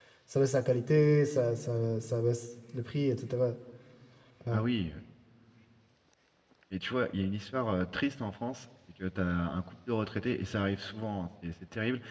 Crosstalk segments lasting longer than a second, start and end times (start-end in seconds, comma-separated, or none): none